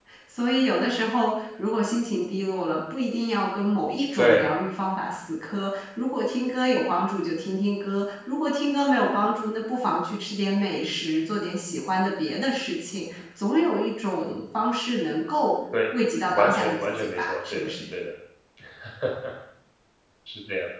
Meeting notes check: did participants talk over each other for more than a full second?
Yes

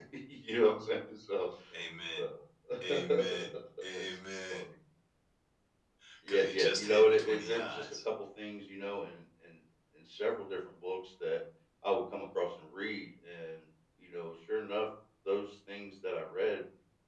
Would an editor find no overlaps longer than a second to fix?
No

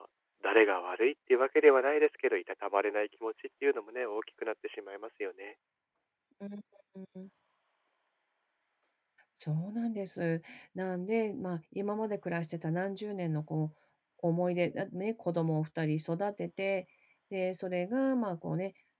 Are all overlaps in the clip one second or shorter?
Yes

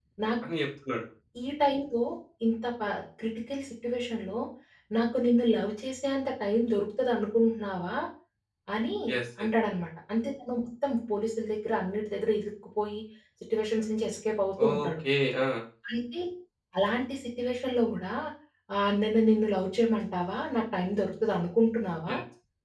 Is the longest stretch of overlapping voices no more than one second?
Yes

